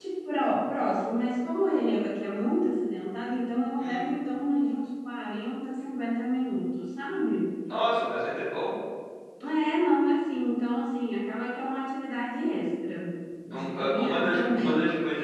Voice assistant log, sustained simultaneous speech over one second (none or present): present